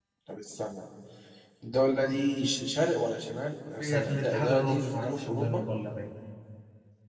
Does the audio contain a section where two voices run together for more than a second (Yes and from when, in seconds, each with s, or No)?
Yes, from 3.8 s